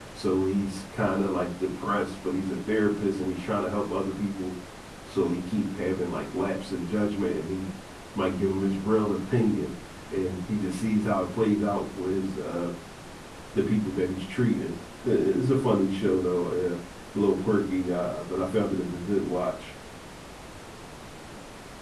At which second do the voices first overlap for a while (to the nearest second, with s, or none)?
none